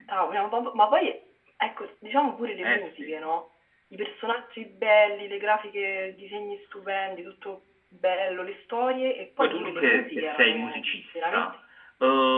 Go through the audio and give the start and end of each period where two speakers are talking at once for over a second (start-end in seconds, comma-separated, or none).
9.4-11.5